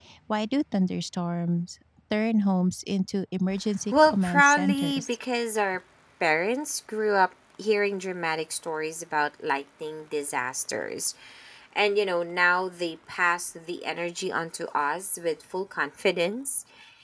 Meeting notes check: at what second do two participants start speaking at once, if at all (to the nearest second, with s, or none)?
4 s